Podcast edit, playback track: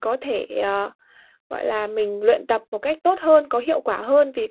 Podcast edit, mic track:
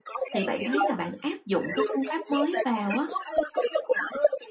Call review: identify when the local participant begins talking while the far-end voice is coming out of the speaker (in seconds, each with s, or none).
0.3 s